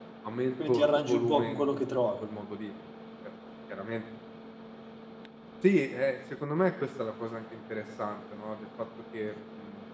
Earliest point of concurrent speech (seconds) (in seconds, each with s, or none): 0.7 s